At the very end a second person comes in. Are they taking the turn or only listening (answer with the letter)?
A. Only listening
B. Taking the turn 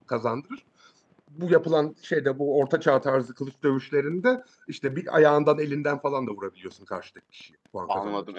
B